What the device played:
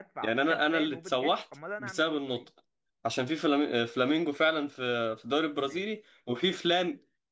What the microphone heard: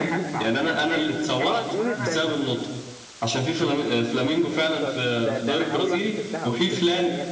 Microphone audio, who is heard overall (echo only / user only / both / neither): both